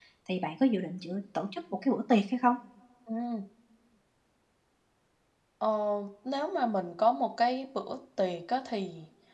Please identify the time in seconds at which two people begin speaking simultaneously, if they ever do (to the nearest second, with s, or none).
none